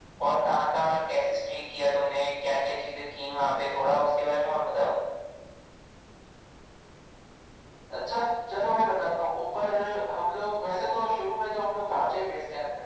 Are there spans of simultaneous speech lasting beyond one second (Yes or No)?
No